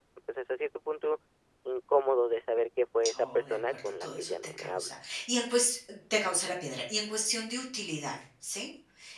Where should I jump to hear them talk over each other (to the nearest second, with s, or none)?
3 s